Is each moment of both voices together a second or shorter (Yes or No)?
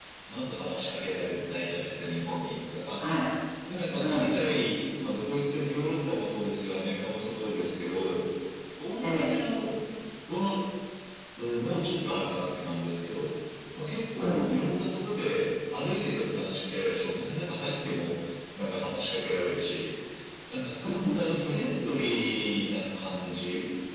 Yes